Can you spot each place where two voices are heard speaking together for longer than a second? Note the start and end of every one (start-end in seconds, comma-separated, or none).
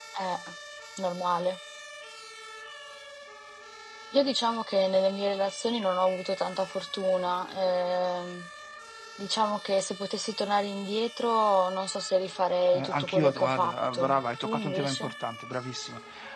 12.7-15.1